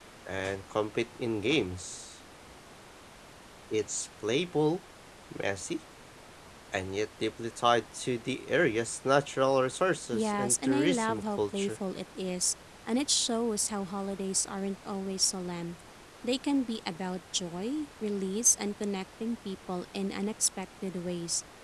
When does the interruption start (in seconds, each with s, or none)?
10.1 s